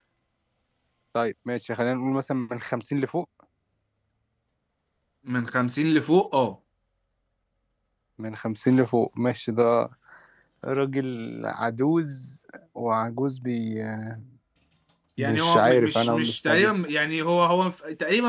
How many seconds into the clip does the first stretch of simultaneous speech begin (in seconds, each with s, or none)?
15.2 s